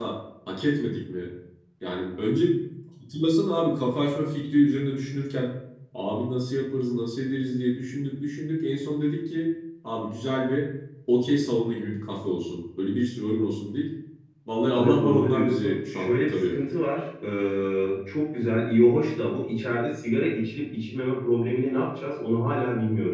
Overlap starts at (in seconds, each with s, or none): 14.7 s